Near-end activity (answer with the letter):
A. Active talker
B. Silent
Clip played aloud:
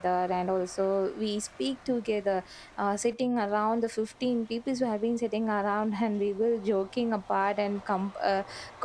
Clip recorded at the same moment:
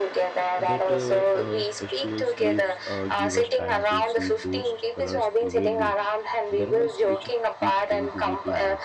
A